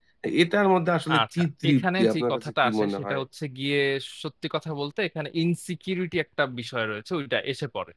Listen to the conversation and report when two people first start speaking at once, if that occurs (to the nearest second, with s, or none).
1 s